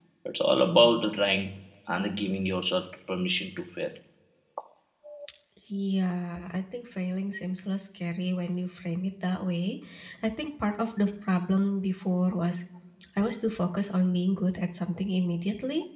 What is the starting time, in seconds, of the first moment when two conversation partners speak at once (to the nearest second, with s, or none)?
none